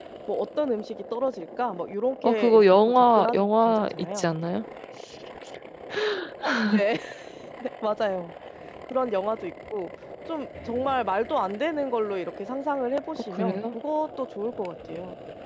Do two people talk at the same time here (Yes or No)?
Yes